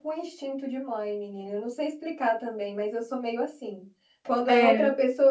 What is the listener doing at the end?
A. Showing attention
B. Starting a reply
A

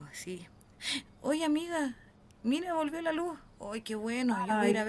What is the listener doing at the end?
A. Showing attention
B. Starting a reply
B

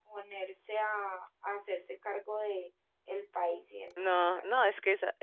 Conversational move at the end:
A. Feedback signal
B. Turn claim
B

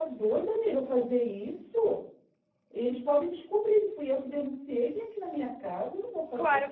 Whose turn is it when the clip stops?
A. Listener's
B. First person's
A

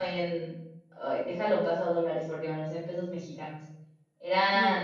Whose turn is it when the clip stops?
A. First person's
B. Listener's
A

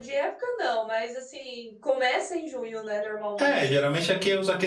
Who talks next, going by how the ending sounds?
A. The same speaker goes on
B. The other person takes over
B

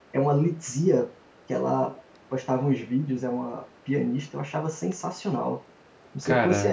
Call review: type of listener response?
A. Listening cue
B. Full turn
A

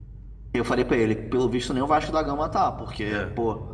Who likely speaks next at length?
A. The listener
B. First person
B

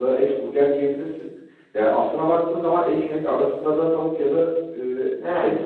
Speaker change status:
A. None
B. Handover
A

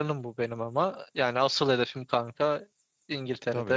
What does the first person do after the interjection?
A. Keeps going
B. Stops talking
B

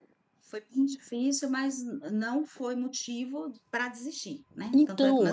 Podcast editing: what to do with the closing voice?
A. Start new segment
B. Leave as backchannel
A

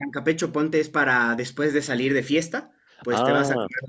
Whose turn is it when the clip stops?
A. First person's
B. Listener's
A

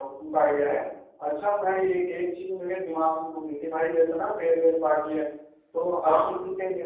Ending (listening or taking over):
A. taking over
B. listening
B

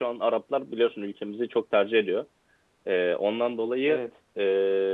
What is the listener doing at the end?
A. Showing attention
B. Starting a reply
A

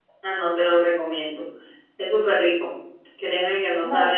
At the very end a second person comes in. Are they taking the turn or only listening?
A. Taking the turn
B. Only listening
B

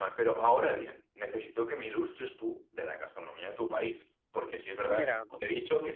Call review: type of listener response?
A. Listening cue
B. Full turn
A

